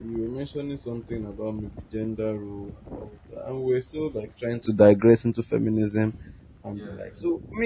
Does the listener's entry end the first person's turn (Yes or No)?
No